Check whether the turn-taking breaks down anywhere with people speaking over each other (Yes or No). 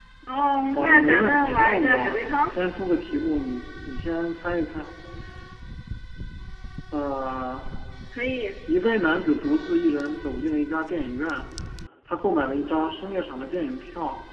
Yes